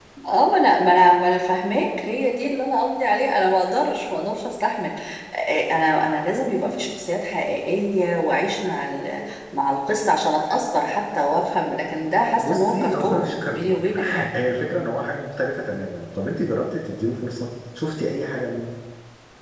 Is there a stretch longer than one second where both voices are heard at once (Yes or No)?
Yes